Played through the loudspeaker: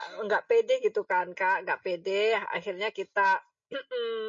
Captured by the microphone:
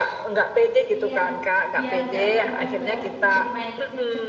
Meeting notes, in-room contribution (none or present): present